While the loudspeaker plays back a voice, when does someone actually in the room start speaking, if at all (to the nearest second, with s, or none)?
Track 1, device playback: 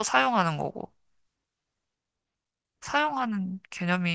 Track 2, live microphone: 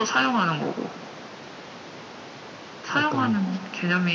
3 s